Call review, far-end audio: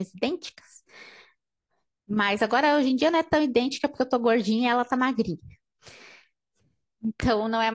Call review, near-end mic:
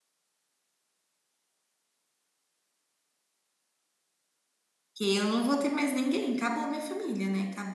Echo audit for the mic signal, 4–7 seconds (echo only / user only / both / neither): user only